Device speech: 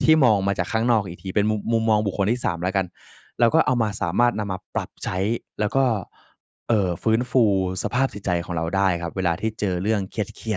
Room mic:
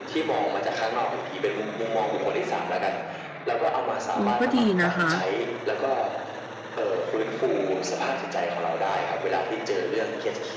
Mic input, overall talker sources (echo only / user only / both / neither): both